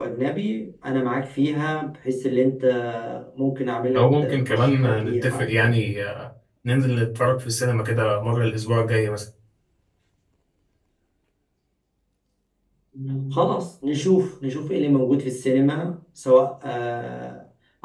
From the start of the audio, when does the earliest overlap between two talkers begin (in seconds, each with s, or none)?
4.0 s